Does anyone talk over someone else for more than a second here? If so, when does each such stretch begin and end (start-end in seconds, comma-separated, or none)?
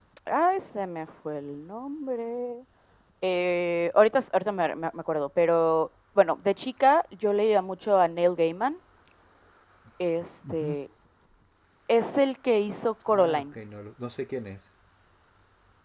none